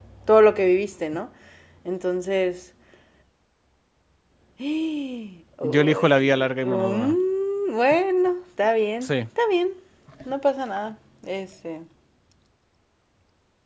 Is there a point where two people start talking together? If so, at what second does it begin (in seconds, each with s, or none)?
5.6 s